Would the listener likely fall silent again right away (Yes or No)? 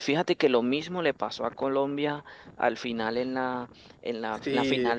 Yes